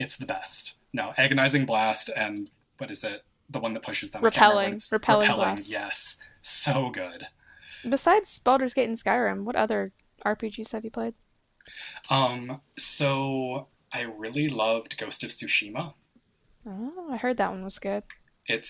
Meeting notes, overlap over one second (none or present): present